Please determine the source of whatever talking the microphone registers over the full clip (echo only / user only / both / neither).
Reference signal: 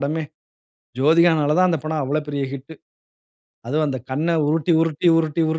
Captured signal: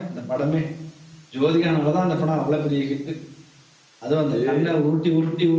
both